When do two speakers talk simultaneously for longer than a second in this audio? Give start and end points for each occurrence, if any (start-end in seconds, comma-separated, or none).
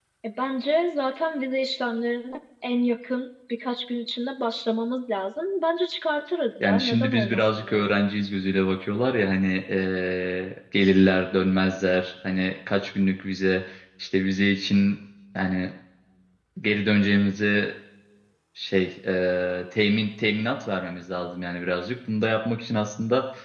6.6-8.0